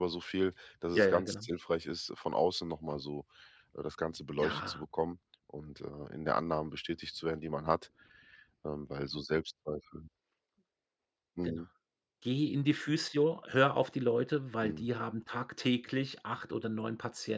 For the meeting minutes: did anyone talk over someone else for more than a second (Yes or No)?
No